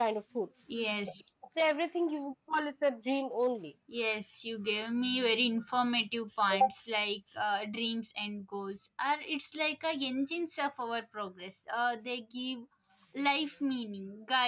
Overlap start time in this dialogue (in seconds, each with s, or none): none